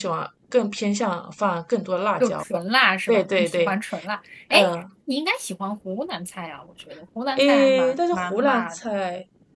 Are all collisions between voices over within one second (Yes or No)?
No